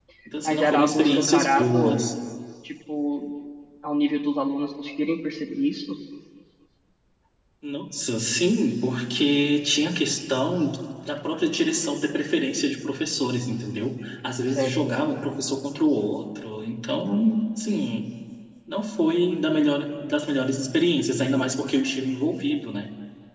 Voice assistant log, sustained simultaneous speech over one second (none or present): present